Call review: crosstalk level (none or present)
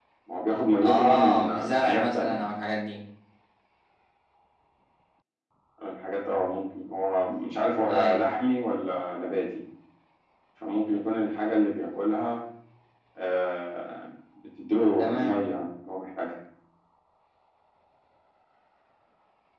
present